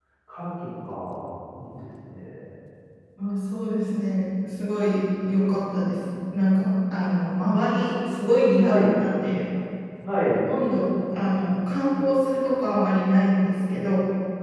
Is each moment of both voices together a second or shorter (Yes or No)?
Yes